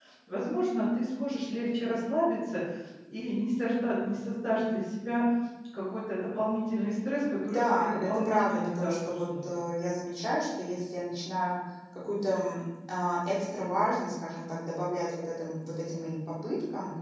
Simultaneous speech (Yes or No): Yes